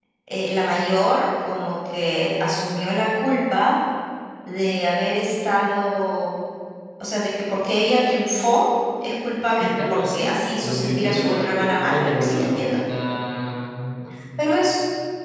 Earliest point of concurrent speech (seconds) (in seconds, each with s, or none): 9.6 s